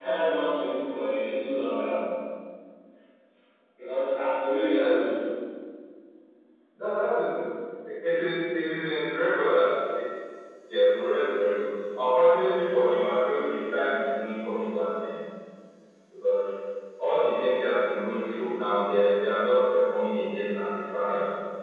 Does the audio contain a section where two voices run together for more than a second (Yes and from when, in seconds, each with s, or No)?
No